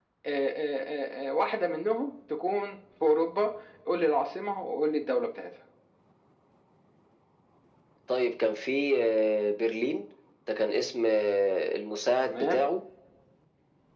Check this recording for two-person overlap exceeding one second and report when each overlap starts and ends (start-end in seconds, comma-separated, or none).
none